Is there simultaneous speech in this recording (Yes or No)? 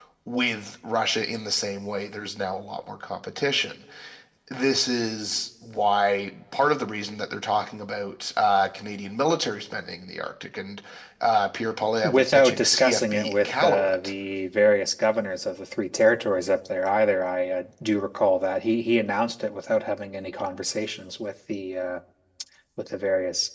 Yes